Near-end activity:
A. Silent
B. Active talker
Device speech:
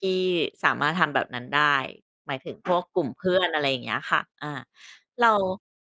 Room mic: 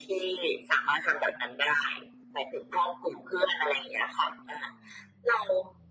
A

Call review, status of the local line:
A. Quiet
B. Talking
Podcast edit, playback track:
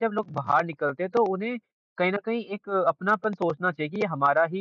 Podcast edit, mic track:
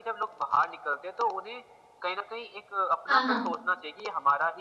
B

